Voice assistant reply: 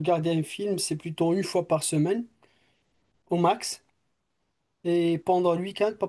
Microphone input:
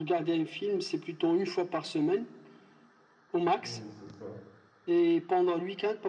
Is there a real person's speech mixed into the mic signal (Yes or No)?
Yes